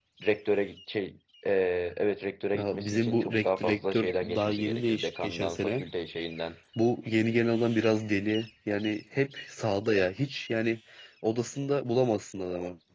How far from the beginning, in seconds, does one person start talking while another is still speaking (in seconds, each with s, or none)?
2.5 s